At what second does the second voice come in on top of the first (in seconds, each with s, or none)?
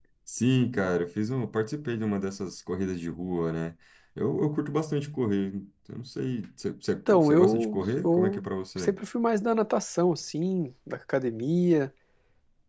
7.1 s